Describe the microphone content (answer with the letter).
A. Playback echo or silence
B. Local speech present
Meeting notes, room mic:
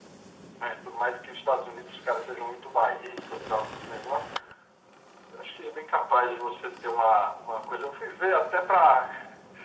A